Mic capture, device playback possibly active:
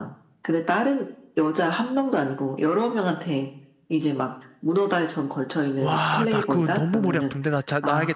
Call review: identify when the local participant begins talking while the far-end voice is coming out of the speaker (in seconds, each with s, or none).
5.8 s